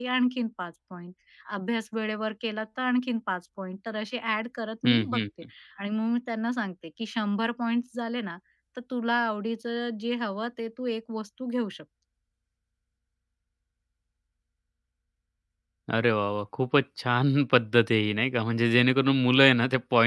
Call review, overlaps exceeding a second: none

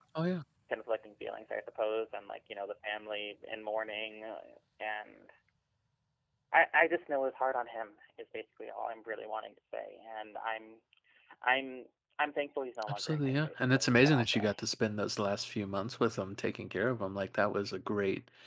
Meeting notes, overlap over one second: present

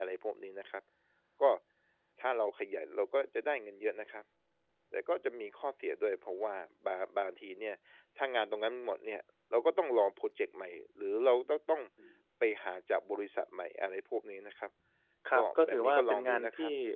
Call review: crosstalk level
present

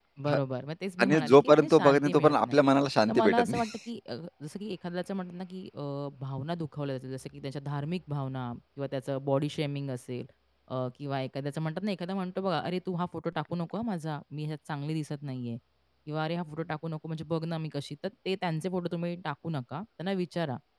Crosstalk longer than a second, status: present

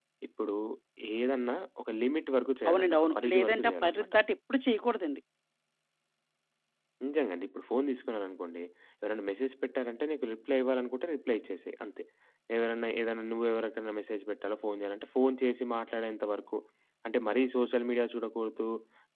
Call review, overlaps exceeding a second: present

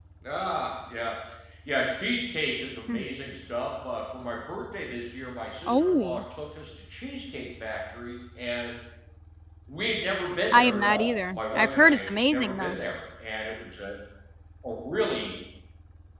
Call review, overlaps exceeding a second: present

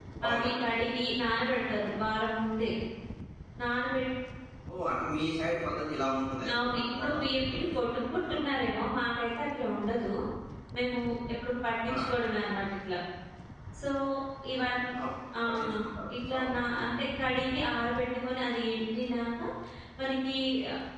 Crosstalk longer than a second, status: present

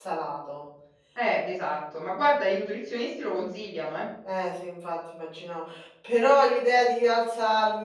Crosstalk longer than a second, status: none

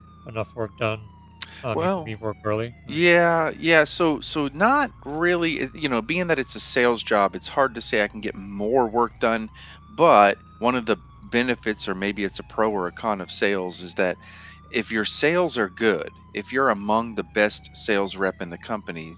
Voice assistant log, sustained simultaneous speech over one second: none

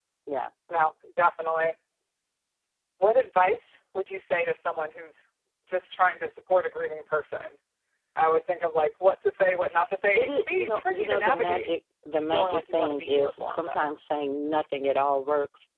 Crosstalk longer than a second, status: present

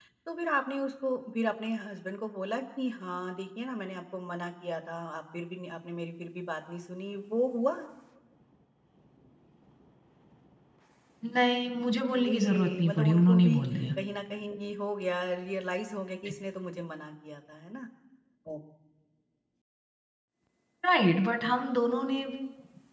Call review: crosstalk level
present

